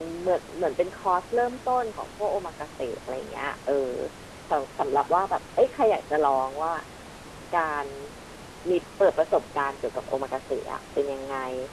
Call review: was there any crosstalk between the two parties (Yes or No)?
No